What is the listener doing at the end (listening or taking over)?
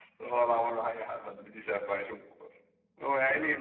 listening